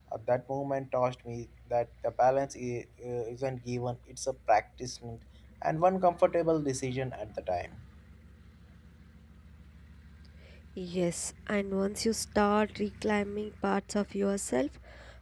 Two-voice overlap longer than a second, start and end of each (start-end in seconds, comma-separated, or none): none